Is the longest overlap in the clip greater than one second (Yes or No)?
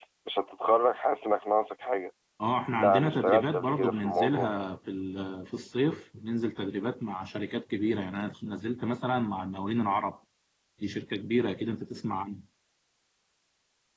Yes